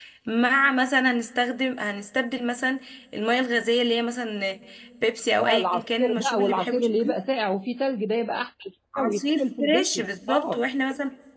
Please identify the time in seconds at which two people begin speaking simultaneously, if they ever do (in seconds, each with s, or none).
5.4 s